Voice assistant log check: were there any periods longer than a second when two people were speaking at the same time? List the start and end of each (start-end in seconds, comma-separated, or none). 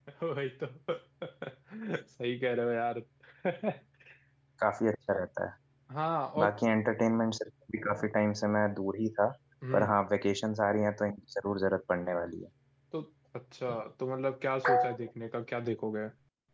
none